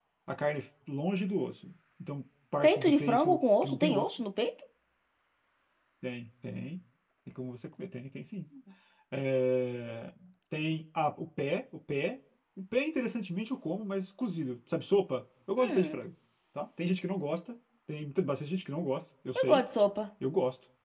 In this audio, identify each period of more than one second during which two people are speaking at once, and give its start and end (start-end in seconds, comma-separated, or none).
2.6-4.0